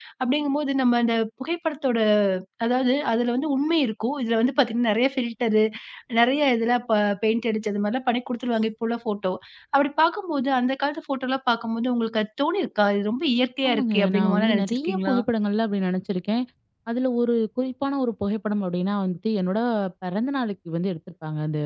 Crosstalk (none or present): present